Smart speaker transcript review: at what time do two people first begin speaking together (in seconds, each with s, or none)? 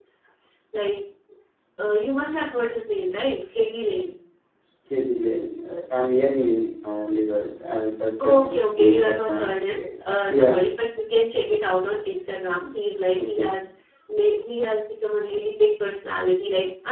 8.2 s